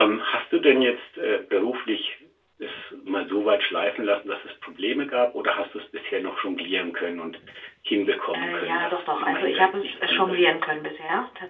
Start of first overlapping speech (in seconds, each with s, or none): 8.3 s